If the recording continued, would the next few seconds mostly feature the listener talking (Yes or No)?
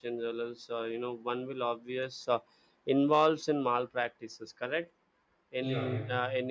No